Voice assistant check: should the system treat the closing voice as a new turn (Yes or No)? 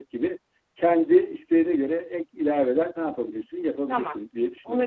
Yes